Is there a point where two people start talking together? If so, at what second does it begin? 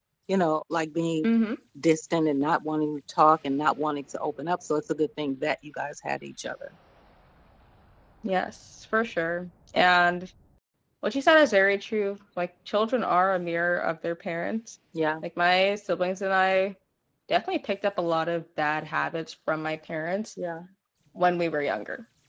none

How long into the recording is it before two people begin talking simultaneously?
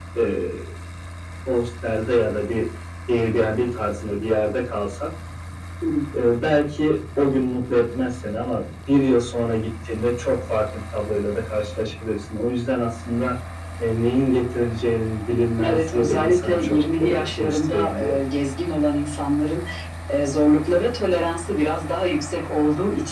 16 s

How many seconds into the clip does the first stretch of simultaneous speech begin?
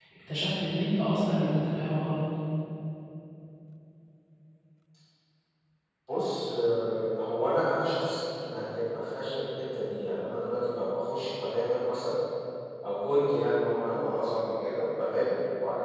none

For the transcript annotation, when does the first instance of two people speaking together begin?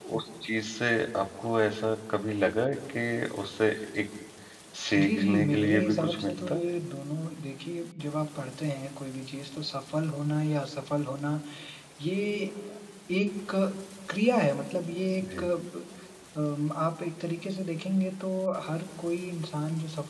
5 s

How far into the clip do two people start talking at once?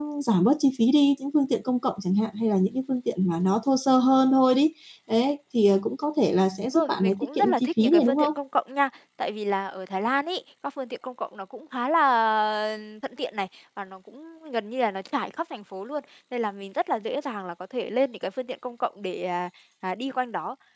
7 s

